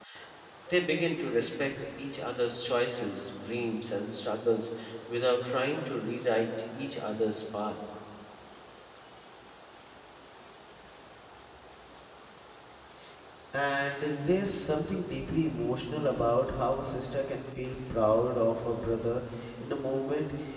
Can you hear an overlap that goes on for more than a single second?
No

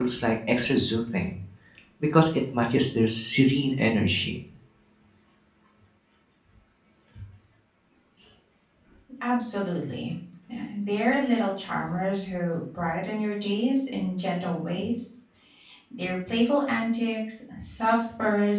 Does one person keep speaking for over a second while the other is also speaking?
No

